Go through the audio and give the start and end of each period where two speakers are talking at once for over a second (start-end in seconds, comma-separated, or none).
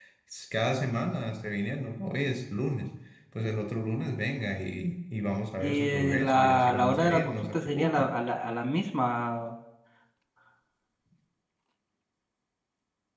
5.6-8.1